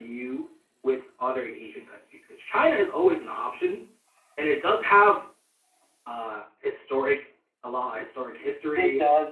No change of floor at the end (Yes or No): No